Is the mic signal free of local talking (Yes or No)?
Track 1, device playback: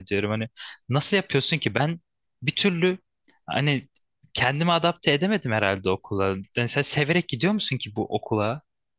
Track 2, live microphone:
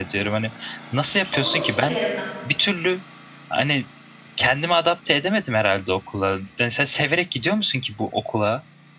No